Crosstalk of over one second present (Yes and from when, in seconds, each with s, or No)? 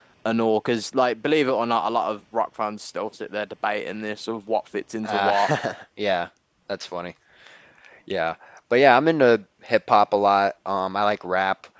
No